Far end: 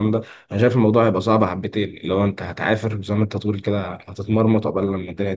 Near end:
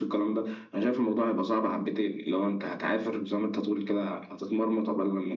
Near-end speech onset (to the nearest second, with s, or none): none